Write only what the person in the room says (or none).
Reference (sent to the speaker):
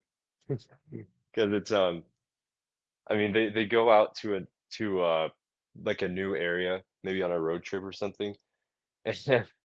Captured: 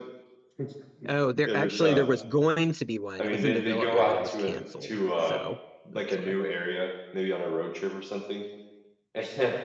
Oh, there actually there was going to be one. It was in development, but it was canceled. So that's why.